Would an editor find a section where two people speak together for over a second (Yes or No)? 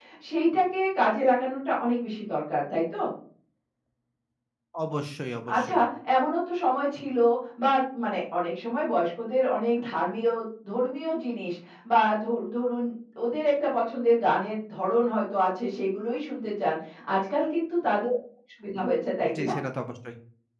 No